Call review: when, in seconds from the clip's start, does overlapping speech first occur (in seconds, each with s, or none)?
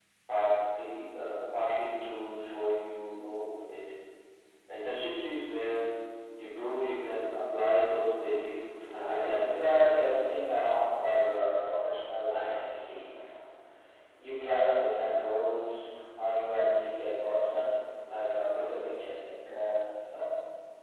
8.9 s